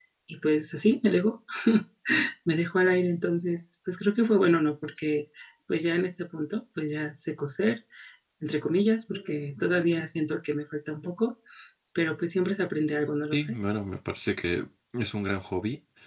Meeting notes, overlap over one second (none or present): none